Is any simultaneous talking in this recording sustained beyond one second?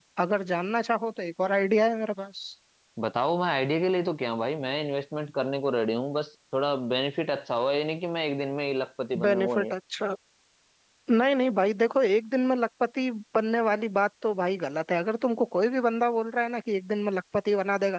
No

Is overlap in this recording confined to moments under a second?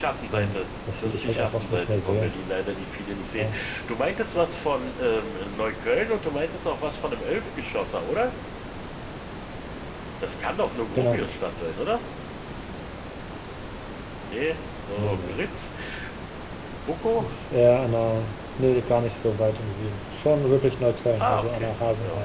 No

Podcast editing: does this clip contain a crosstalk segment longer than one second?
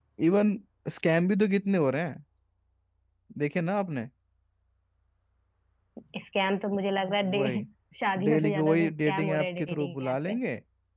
Yes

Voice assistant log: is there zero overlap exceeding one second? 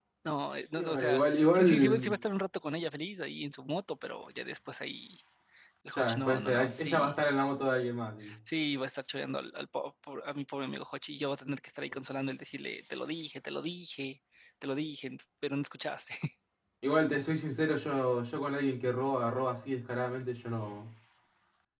No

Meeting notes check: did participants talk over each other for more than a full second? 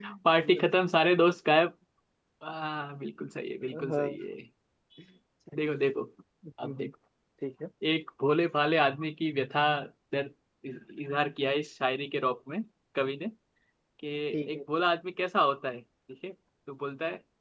No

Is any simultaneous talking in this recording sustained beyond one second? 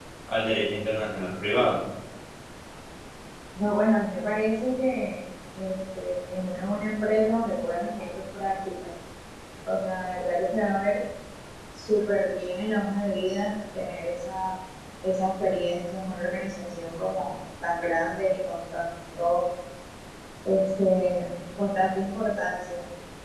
No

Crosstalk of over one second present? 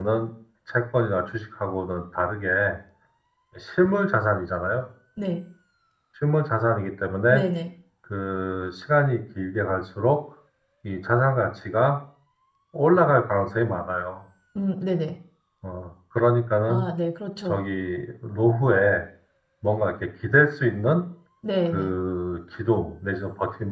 No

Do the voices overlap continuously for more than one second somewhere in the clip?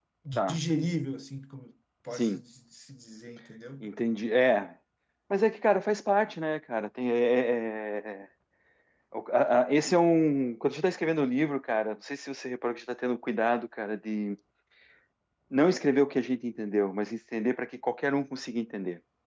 No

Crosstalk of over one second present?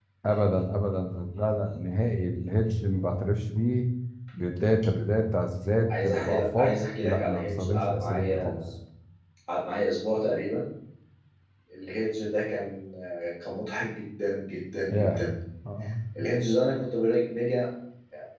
Yes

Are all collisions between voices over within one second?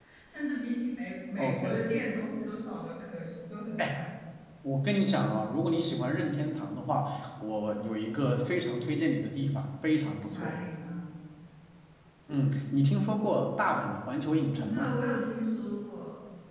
Yes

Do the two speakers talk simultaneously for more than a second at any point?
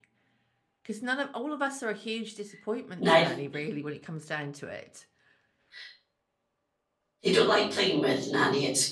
No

